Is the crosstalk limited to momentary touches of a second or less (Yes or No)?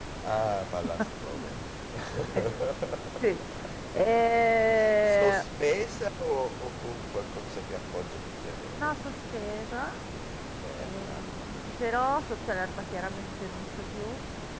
No